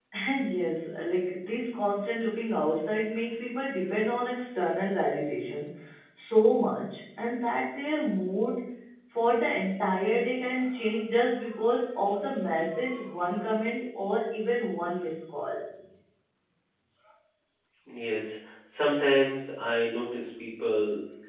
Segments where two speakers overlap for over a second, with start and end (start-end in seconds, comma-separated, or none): none